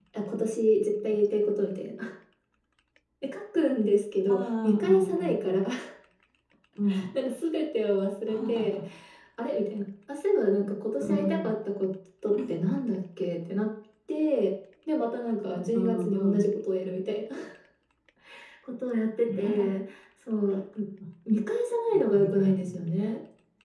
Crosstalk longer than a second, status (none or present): present